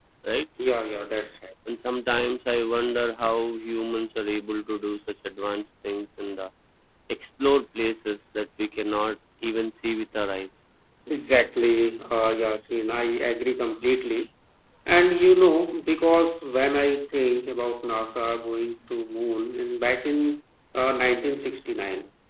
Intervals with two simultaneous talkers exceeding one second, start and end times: none

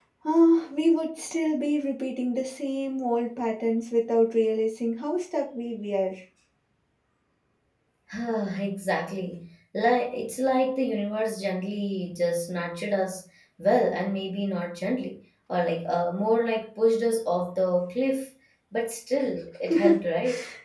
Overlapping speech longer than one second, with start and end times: none

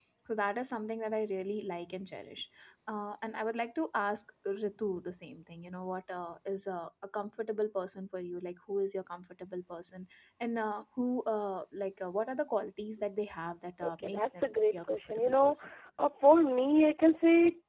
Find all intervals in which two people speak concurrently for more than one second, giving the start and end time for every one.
13.8-15.6

